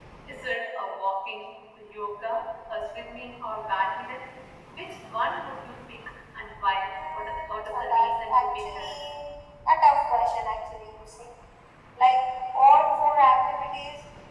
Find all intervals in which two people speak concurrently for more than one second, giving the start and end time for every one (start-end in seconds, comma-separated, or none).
6.9-8.9